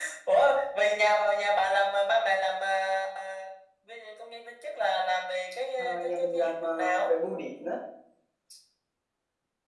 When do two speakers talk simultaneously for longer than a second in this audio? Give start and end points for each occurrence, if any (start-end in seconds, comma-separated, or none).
5.8-7.1